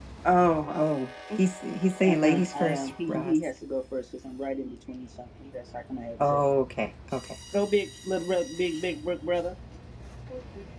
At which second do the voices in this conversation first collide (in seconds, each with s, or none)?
2.0 s